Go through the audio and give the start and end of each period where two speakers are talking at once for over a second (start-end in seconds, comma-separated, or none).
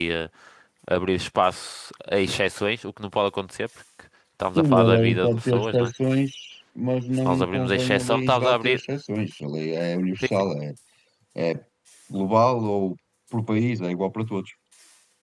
4.6-5.9, 7.3-8.8